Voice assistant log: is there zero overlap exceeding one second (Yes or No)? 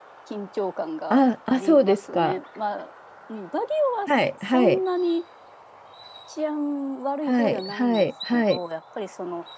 No